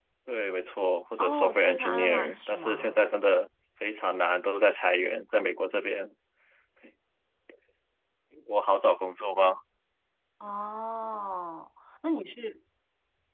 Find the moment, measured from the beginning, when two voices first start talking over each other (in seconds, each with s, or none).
1.2 s